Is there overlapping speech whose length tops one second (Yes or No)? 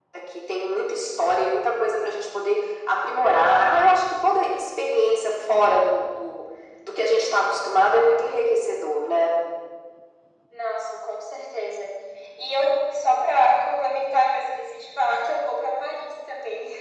No